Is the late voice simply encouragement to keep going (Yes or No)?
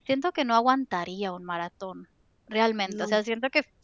Yes